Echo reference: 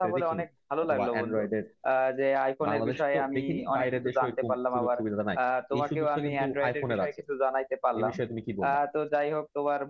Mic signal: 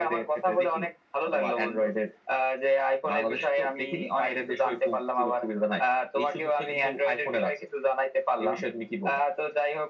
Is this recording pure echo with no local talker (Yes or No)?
Yes